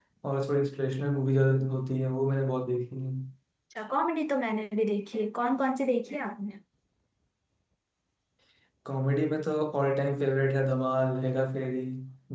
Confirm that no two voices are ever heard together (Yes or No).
Yes